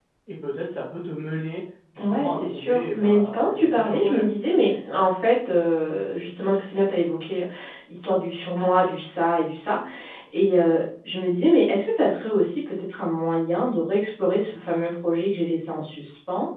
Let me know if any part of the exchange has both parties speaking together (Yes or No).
Yes